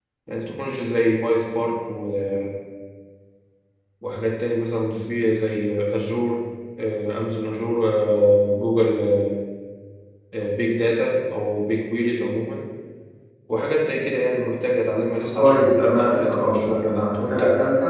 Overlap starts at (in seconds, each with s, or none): 15.3 s